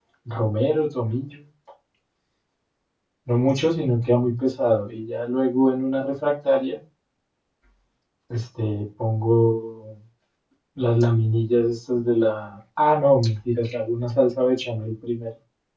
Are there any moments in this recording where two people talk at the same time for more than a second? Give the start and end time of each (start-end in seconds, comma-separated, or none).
none